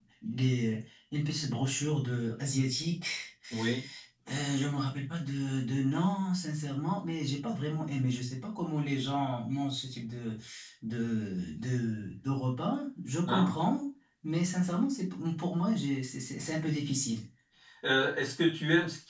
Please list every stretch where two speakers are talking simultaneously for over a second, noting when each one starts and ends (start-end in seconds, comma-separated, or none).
none